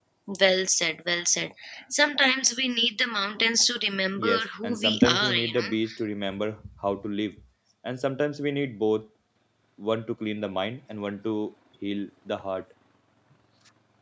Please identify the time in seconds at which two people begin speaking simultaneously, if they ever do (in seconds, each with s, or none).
4.2 s